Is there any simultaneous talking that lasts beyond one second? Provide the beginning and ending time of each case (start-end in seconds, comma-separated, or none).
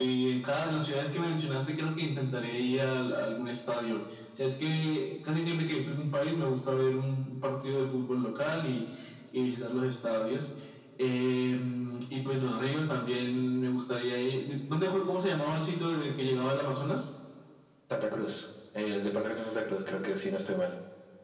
none